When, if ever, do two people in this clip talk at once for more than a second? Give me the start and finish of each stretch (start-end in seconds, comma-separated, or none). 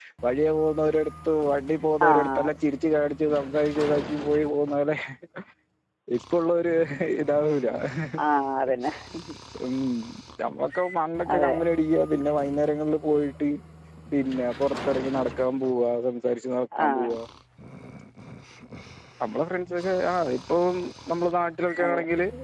none